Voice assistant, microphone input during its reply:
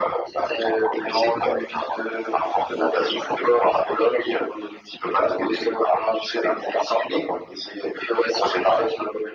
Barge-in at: none

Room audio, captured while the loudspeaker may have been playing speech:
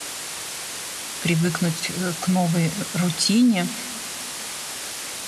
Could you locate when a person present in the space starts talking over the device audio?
1.2 s

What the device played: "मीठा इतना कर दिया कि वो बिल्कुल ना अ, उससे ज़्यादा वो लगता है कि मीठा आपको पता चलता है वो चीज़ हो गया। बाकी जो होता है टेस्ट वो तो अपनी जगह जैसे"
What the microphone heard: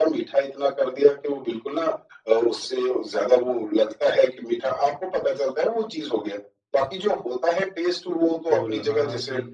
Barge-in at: 8.5 s

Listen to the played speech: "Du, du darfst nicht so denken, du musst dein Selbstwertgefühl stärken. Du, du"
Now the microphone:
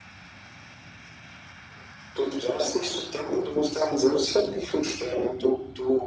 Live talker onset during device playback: none

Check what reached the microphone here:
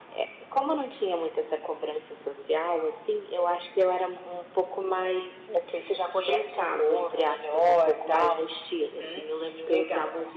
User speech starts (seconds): none

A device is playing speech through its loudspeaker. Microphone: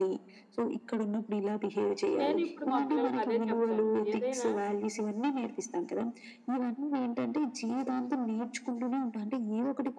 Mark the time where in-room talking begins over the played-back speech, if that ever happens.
2.2 s

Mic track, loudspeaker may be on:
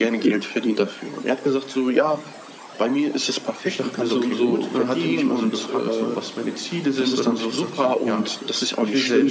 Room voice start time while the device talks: 3.6 s

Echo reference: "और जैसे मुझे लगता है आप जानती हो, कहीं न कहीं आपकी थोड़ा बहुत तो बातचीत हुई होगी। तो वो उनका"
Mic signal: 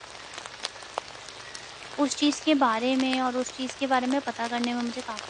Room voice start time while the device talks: 2.0 s

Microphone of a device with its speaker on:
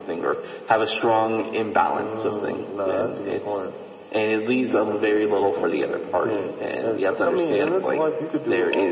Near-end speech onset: none

